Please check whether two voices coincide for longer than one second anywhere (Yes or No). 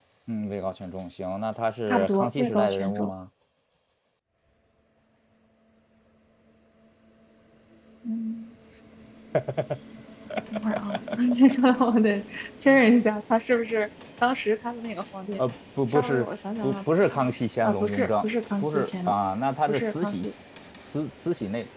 Yes